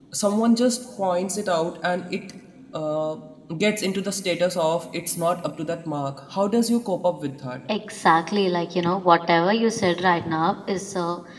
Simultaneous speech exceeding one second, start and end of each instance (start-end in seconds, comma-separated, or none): none